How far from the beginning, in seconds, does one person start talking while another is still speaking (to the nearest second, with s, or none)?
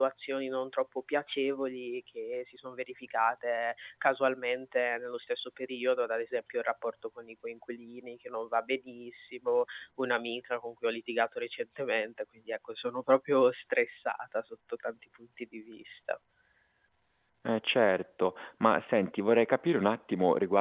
none